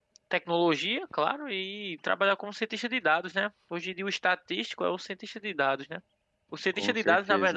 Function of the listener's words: listening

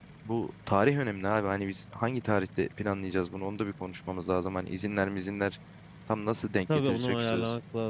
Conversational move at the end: taking over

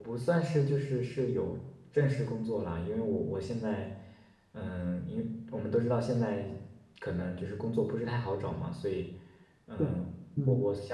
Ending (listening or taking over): listening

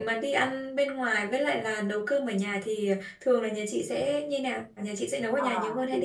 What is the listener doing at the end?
taking over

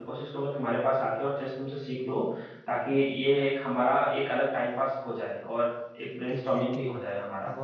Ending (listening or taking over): taking over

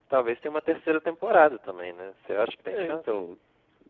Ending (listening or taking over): taking over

